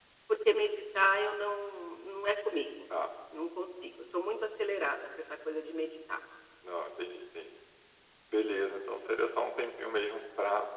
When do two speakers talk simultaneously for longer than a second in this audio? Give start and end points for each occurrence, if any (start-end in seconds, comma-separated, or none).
none